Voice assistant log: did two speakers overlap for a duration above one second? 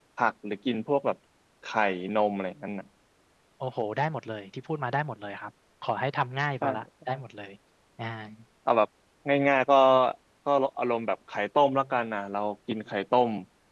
No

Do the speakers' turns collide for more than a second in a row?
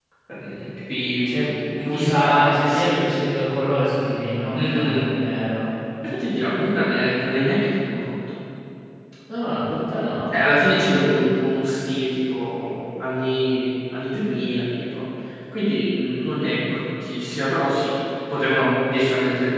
Yes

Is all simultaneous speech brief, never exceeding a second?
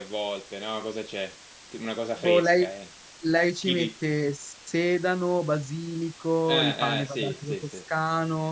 No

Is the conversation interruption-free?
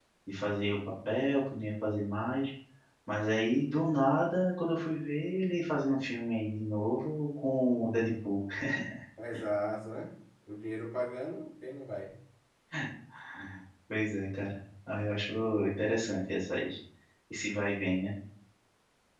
Yes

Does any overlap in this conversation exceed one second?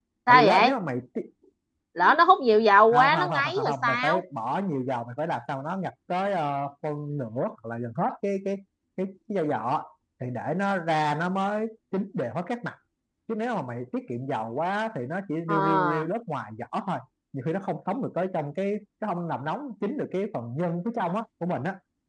Yes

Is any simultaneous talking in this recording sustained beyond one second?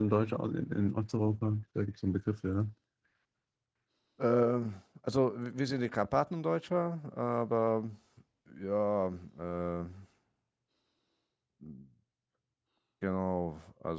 No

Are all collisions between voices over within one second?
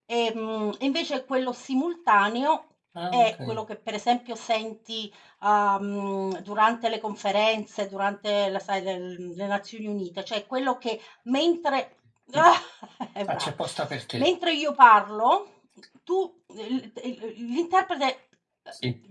Yes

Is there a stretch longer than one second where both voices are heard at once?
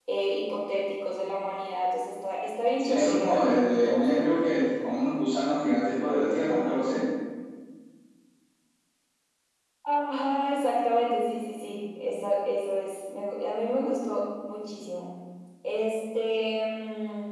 Yes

